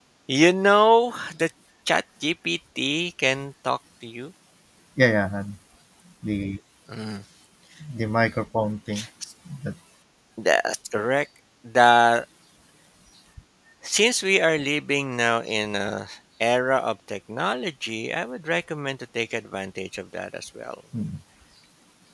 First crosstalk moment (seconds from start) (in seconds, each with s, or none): none